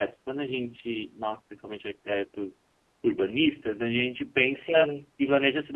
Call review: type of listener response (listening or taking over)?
listening